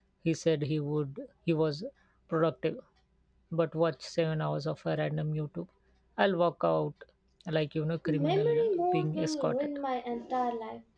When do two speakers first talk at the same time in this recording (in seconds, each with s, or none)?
8.1 s